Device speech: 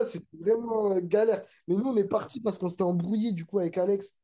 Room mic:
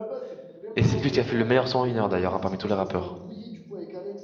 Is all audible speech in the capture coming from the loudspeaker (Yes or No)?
No